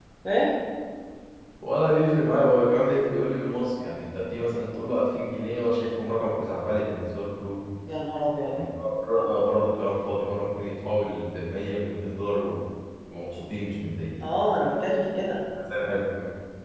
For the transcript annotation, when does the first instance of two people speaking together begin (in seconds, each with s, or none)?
none